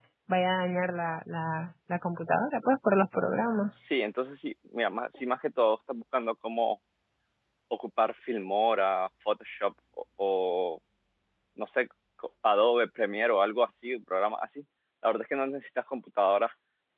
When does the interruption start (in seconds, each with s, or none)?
none